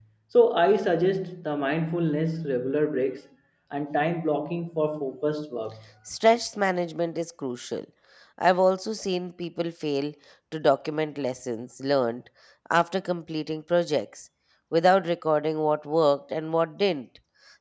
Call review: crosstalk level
none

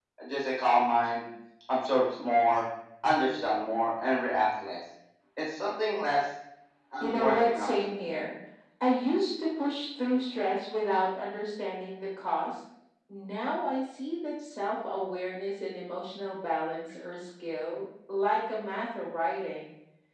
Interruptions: present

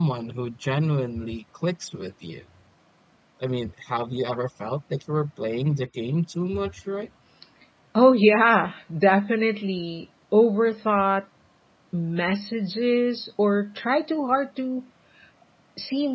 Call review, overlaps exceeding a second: none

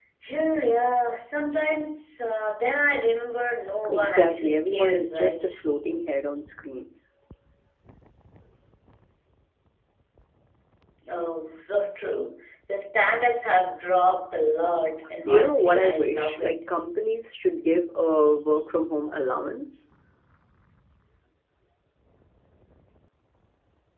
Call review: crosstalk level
present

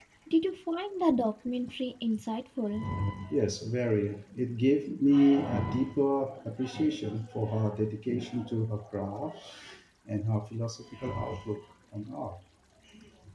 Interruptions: none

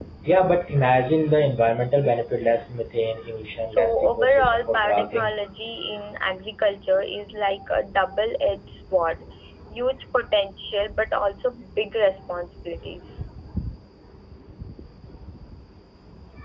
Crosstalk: present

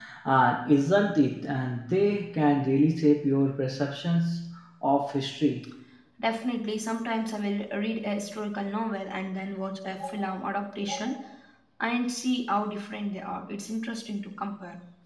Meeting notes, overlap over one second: none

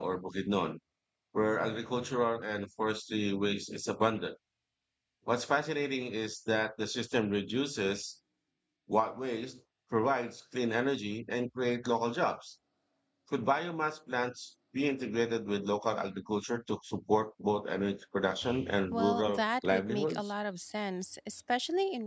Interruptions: present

